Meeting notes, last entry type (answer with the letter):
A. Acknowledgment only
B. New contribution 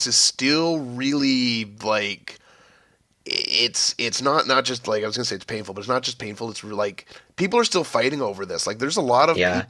A